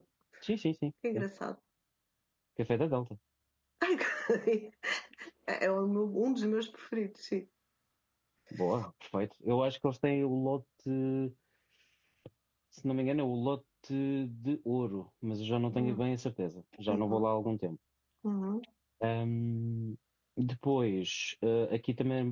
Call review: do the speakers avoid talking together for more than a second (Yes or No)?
Yes